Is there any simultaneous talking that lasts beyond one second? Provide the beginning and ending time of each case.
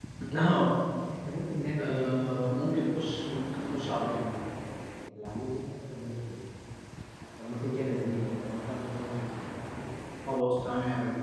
1.8-4.1

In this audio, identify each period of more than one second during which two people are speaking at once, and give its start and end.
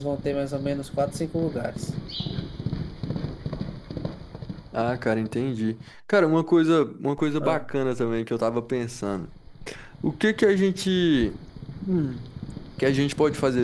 none

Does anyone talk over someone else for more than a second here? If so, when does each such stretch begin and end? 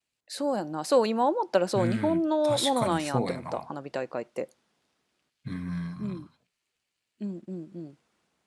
1.7-3.6

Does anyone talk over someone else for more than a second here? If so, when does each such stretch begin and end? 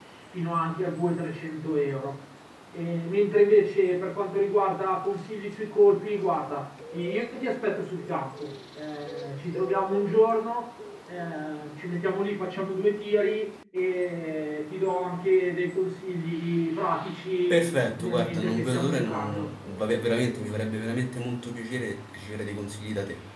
17.5-19.5

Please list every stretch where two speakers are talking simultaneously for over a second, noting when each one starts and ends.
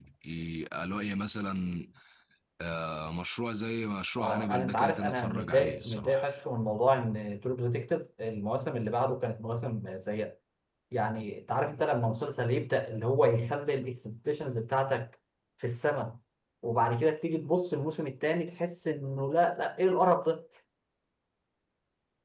4.2-6.3

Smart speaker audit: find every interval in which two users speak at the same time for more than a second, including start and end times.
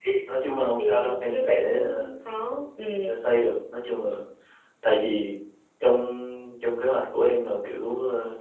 0.8-2.1

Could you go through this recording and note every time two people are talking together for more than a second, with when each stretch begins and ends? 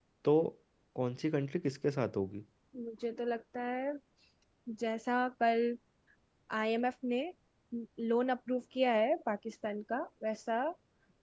none

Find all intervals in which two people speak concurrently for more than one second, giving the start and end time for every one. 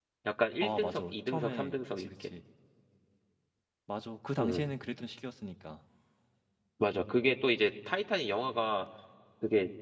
0.6-2.3

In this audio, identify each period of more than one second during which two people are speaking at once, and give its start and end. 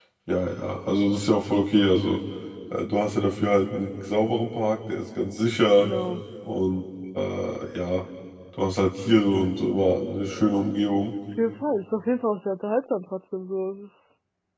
none

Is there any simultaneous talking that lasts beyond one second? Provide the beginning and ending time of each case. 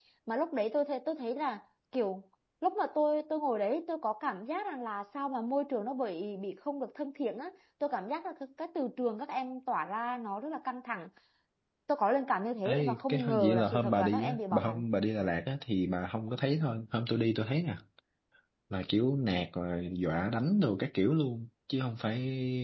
12.6-14.8

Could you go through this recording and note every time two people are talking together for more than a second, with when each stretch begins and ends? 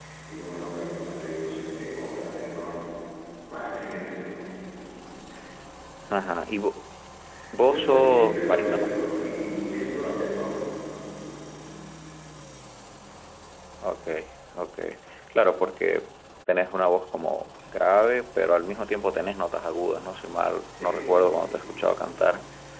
7.6-8.9

